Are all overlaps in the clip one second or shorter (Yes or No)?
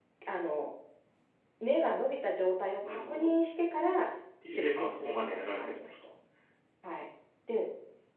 No